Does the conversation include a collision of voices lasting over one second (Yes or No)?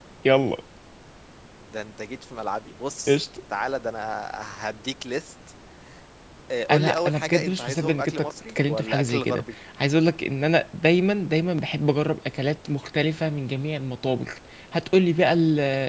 Yes